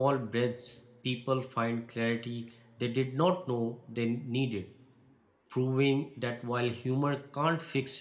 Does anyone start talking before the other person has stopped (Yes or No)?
No